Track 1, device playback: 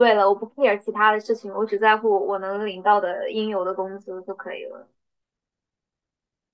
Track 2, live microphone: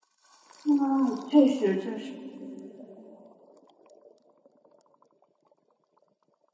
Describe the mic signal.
user only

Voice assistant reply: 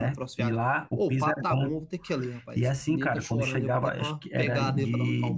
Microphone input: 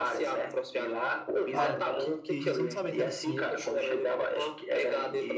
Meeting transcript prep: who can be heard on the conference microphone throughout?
both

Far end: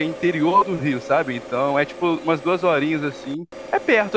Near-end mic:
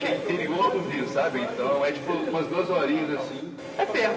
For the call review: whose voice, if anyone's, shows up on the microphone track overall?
both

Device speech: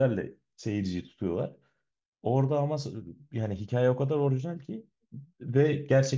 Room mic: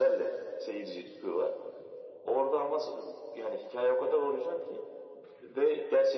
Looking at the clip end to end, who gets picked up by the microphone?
echo only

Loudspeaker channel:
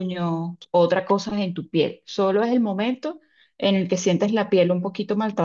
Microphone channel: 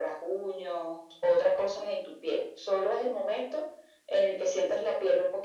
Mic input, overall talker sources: echo only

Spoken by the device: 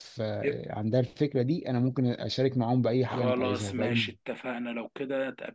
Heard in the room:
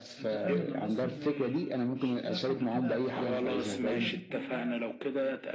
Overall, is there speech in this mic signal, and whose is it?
both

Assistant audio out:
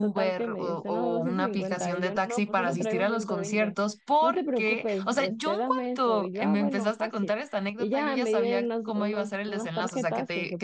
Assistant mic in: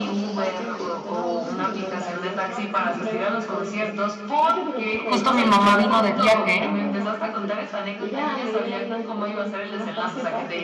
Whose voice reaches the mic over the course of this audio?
both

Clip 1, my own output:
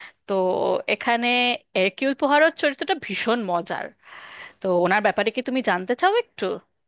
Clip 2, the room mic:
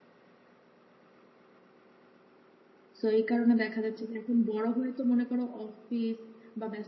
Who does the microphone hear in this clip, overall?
user only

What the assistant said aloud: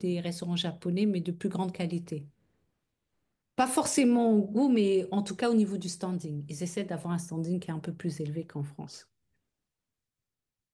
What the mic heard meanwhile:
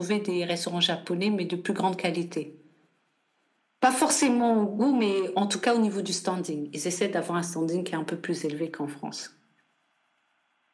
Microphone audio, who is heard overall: echo only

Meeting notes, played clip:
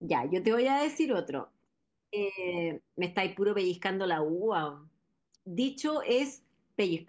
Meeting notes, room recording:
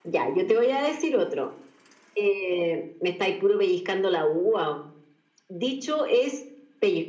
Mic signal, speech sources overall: echo only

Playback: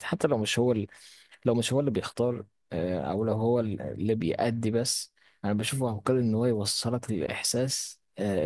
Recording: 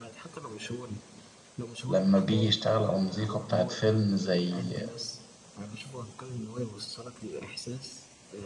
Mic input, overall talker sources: both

